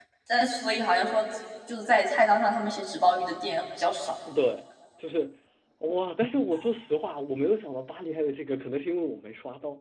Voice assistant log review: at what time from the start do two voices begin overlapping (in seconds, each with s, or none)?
none